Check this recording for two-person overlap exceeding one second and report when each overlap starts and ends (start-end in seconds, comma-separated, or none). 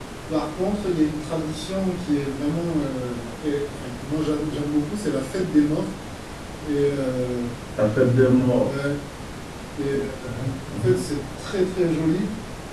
none